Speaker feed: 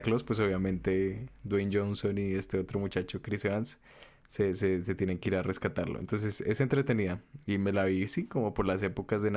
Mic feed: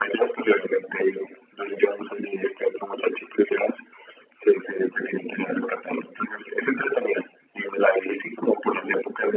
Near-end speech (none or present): none